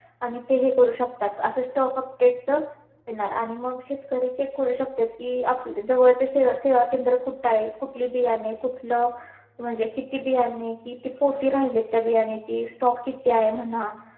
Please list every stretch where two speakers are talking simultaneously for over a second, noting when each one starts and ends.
none

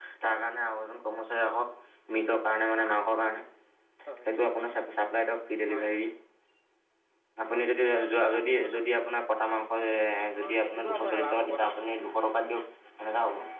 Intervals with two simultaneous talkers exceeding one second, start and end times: 10.4-11.7

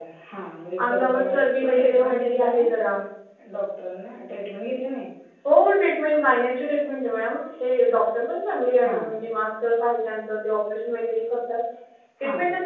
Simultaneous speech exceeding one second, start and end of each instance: 0.8-2.6

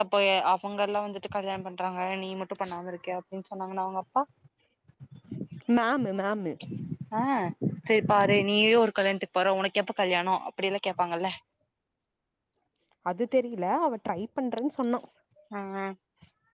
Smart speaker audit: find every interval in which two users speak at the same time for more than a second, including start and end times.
none

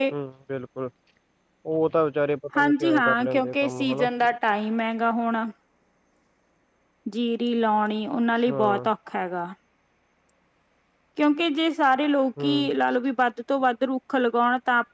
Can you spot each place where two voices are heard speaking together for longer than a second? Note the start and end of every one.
2.6-4.1

